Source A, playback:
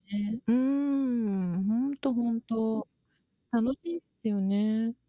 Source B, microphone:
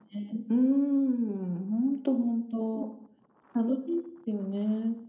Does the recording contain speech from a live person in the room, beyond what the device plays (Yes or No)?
No